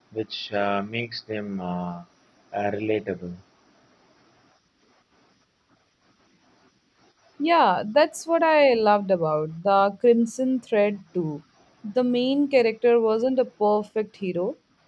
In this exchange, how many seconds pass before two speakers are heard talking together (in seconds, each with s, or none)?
none